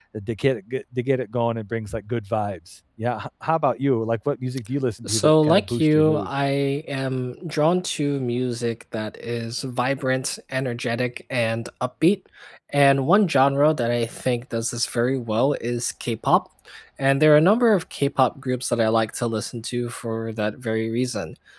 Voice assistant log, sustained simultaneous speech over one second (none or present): present